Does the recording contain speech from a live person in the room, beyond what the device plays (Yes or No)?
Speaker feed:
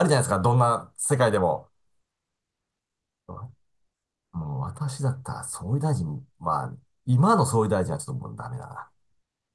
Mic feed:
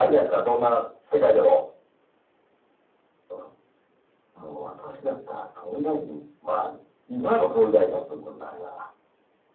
No